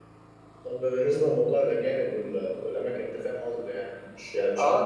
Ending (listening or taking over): taking over